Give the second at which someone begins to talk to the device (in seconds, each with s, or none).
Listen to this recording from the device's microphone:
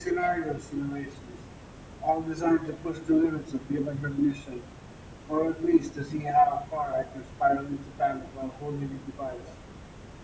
none